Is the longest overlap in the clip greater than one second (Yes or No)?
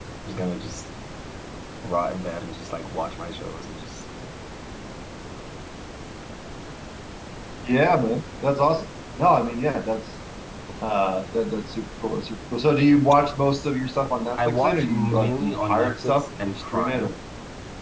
Yes